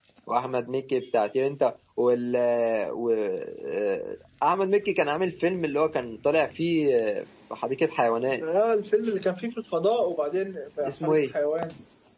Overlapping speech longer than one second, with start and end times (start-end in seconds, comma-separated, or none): none